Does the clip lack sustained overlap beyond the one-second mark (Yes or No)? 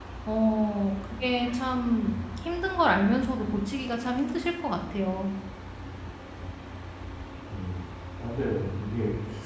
Yes